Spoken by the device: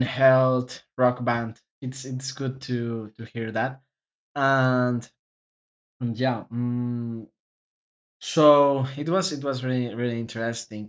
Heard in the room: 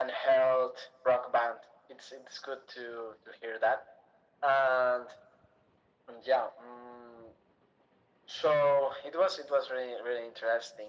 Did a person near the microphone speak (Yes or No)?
No